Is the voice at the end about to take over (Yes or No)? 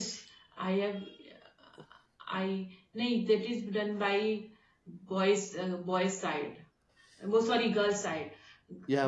No